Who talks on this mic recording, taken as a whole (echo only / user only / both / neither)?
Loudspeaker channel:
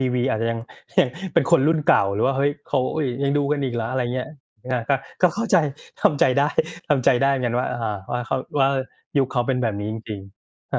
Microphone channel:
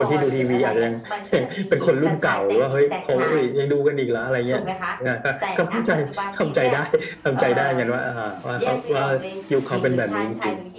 both